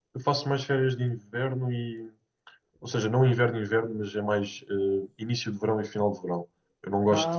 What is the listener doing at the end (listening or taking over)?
listening